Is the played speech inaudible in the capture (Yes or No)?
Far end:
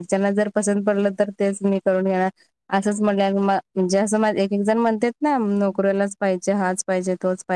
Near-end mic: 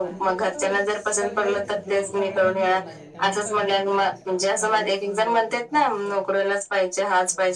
No